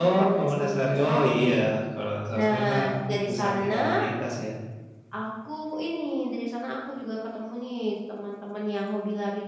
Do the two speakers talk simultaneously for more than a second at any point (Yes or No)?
Yes